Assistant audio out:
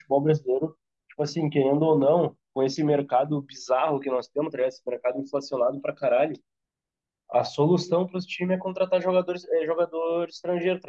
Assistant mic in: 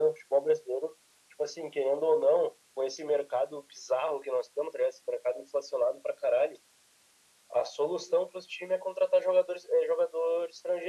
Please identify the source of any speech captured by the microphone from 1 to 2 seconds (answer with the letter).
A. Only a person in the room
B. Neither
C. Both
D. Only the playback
D